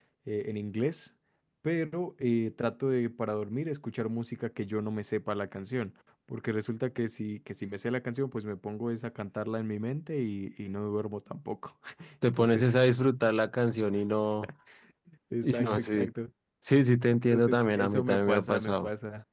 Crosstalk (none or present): present